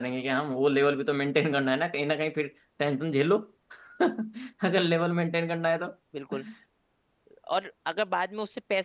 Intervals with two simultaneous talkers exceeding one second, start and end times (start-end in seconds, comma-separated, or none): none